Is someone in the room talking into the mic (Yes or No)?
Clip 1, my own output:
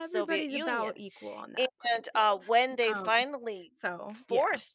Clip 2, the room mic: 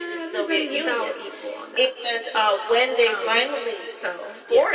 No